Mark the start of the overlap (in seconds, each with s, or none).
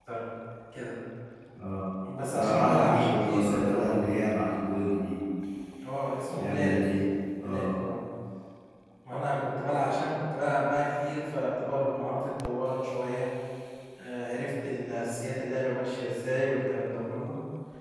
2.3 s